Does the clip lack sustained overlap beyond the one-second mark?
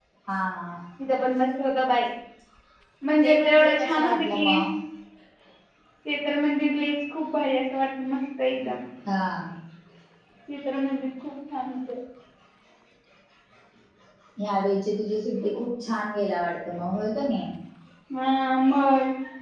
No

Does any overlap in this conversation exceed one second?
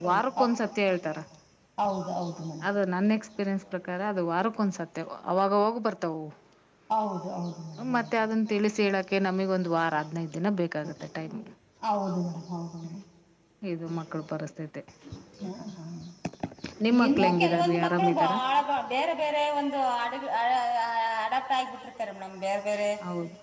Yes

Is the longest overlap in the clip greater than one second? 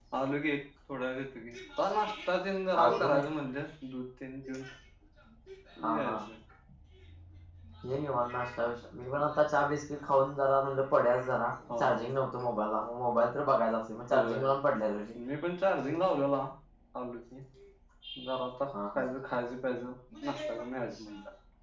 No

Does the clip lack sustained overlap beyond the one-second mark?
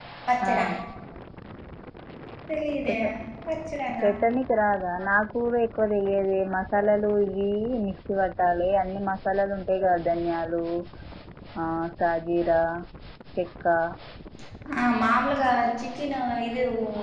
Yes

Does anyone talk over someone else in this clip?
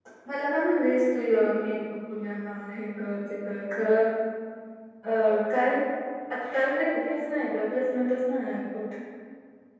No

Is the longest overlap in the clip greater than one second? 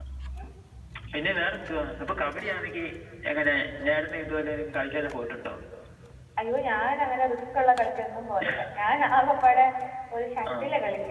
No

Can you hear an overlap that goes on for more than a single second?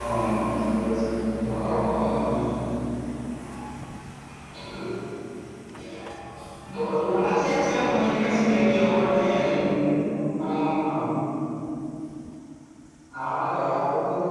Yes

